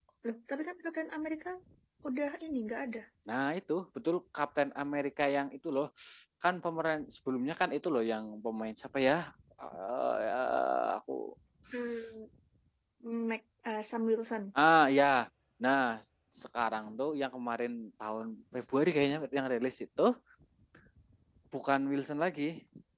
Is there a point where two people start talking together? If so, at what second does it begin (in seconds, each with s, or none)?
none